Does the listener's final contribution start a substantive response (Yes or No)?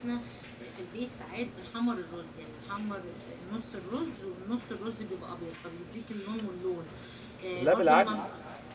No